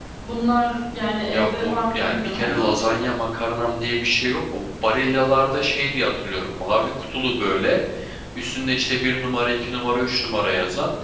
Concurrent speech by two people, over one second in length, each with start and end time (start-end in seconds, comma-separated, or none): 1.3-2.7